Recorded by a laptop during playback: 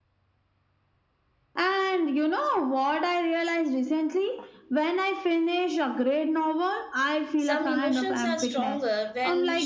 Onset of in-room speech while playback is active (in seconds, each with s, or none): 7.3 s